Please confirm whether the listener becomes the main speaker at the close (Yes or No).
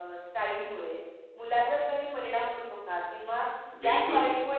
No